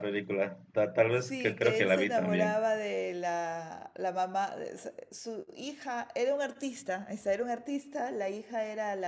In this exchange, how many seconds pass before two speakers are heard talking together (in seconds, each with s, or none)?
1.2 s